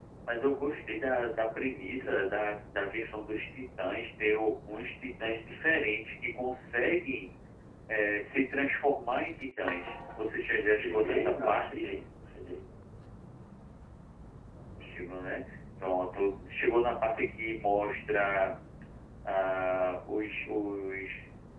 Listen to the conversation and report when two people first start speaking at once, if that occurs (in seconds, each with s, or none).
10.6 s